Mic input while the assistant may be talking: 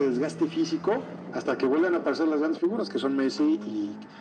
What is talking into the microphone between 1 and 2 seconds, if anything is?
echo only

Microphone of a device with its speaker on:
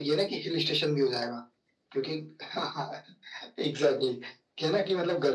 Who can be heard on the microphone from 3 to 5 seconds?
echo only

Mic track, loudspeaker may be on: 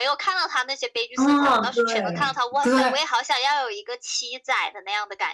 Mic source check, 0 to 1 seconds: echo only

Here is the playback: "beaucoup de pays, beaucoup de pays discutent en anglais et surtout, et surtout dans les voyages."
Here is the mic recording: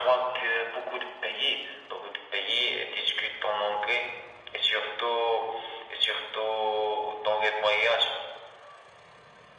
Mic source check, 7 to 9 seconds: echo only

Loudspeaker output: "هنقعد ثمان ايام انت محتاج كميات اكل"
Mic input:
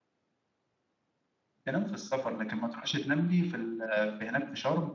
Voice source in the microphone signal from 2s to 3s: user only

